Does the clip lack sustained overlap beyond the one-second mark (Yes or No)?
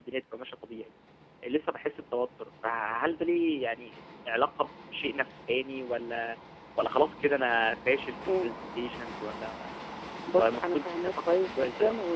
No